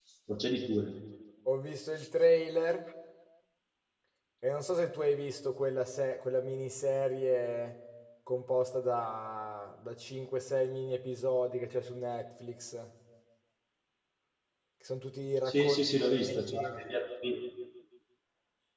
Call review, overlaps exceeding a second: present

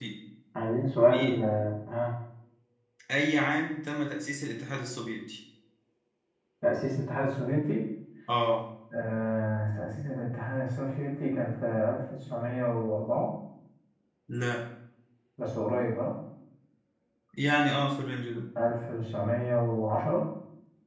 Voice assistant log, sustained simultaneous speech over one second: none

